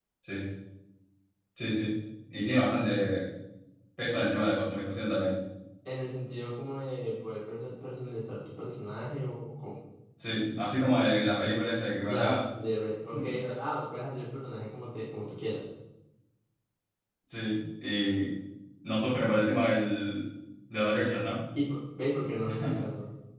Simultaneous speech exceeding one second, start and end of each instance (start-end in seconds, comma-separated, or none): none